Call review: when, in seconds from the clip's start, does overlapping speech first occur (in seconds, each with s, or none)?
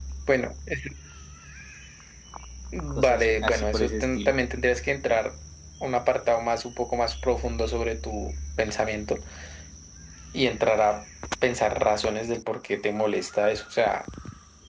2.9 s